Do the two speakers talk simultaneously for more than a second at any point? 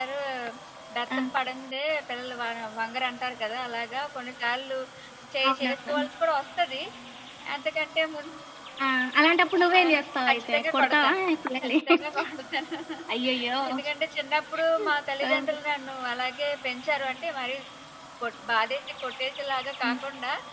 Yes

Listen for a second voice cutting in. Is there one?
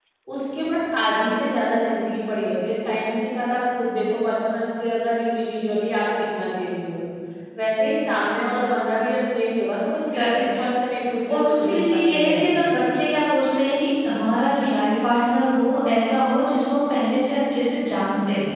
Yes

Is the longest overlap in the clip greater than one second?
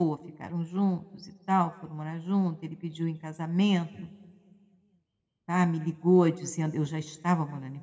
No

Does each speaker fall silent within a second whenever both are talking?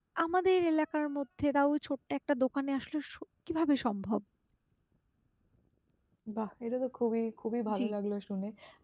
Yes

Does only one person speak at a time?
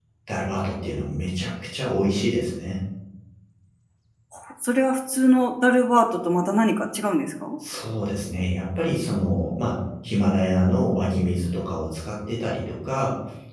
Yes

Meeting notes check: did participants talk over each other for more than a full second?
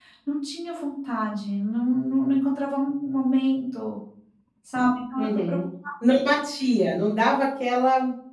No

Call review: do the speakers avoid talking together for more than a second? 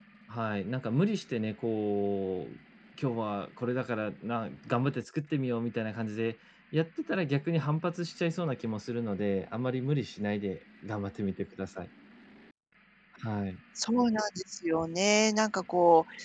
Yes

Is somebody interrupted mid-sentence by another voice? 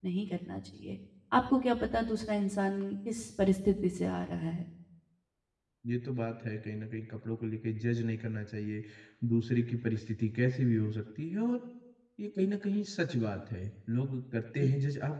No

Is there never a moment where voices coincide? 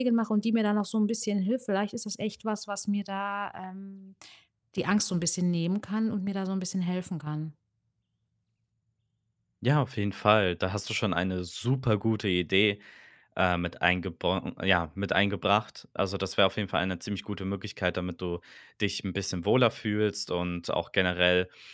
Yes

